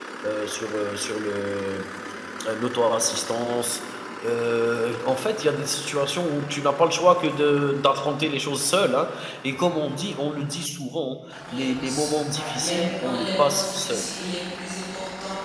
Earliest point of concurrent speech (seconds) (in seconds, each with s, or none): 11.4 s